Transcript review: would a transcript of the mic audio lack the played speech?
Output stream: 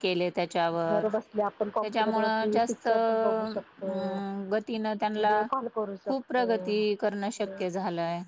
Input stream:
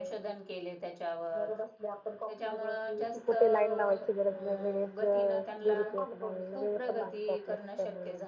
No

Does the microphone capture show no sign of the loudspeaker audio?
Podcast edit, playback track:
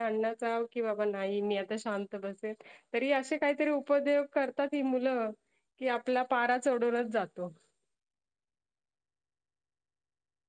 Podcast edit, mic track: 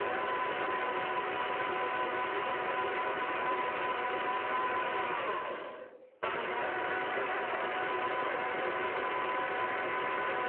Yes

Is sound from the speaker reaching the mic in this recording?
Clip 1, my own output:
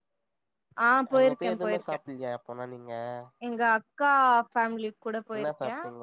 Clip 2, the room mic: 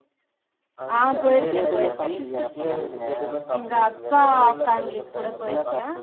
Yes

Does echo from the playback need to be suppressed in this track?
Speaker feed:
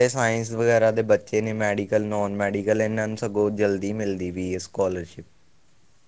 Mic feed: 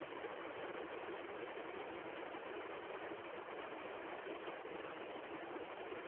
No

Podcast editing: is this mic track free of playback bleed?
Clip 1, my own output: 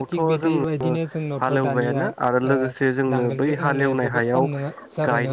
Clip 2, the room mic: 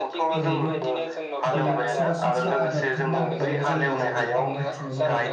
No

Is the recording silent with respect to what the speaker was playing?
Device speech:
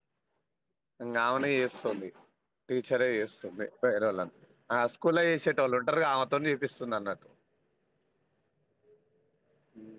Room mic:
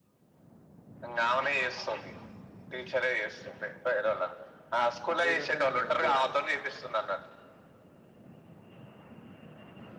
No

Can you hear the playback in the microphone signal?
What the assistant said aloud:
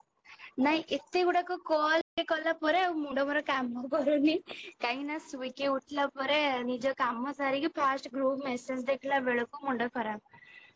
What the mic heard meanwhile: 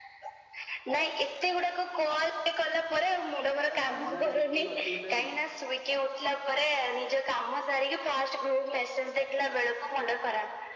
Yes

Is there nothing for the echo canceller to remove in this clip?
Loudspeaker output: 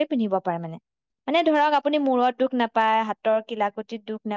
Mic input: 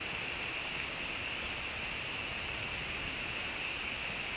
Yes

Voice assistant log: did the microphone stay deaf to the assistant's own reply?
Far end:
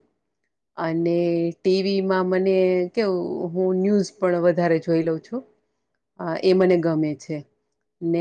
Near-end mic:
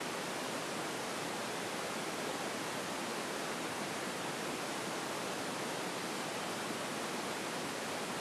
Yes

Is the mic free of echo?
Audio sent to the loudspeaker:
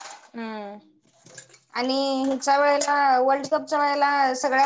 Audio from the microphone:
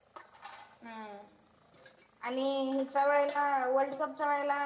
No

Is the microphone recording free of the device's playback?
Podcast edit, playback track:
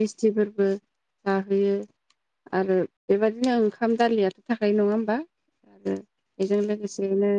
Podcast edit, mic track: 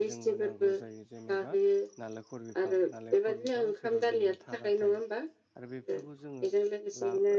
No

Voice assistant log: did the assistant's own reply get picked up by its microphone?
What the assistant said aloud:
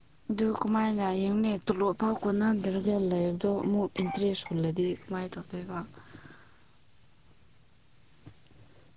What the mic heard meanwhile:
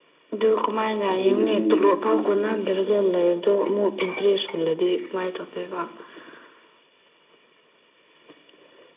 Yes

